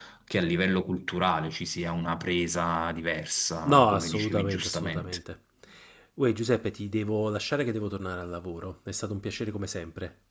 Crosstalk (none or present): present